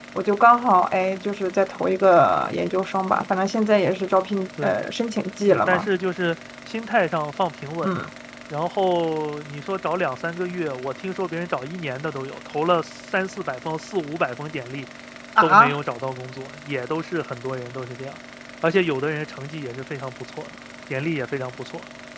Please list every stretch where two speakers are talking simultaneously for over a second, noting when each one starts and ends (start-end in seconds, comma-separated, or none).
none